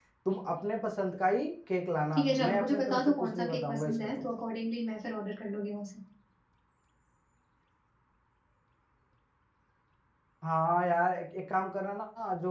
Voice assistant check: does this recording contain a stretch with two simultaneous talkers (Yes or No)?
Yes